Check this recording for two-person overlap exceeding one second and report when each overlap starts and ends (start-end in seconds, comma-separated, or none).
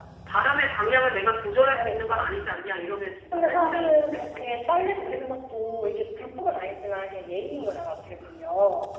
3.3-5.0